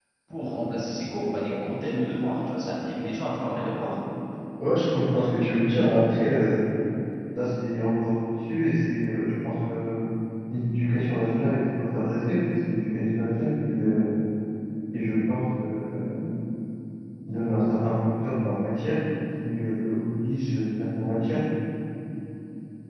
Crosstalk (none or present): none